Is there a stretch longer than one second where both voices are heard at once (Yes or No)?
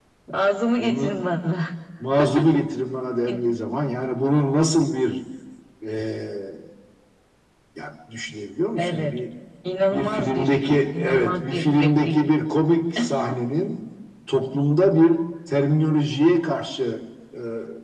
Yes